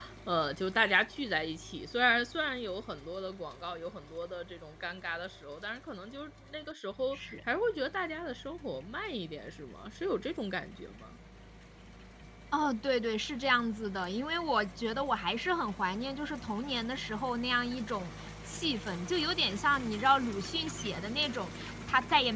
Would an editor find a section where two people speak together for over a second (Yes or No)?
No